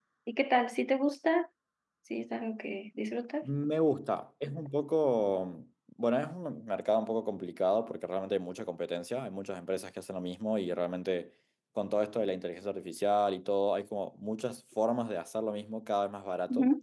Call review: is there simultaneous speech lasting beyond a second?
No

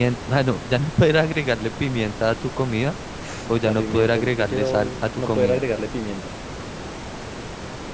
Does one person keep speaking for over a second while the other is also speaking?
Yes, from 3.6 s

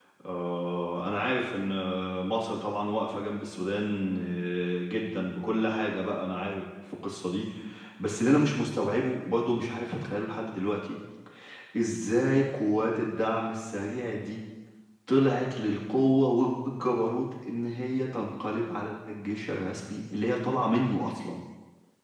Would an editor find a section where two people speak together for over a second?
No

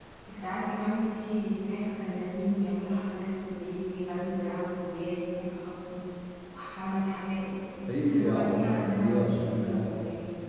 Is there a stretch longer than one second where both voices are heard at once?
Yes, from 8.1 s

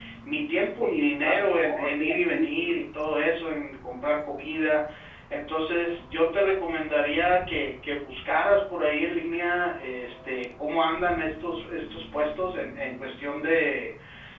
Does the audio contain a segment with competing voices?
Yes, from 1.2 s

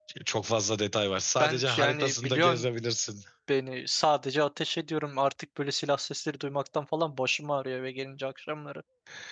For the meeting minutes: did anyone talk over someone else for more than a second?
Yes, from 1.4 s

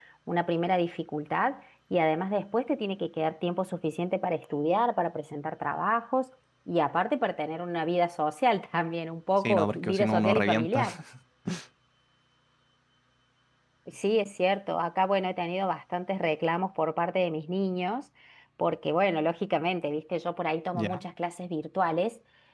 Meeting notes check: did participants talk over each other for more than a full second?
Yes, from 9.4 s

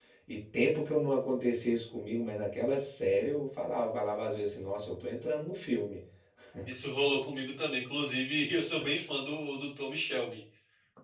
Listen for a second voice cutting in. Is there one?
No

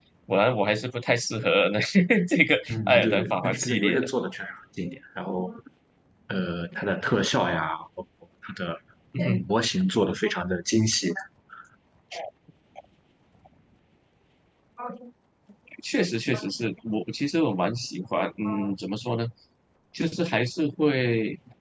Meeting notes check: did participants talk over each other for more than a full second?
Yes, from 2.7 s

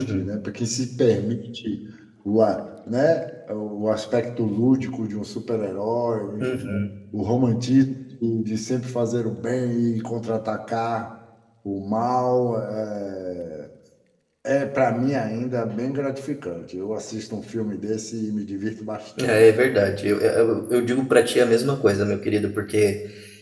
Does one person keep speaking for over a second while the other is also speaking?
No

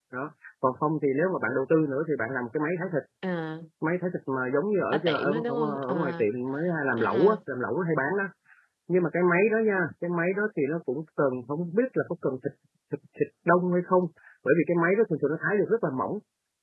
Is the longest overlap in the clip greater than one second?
Yes, from 4.9 s

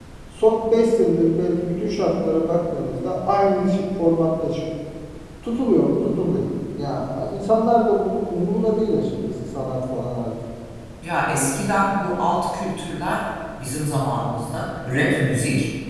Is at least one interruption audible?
No

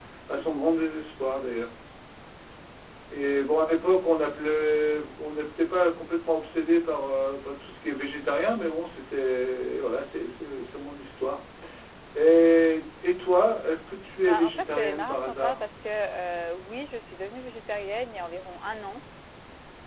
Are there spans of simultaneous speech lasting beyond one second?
Yes, from 14.2 s

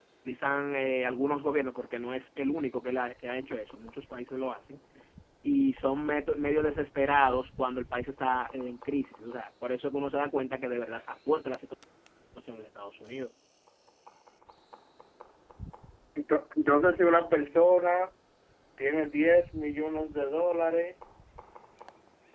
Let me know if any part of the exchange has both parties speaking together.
No

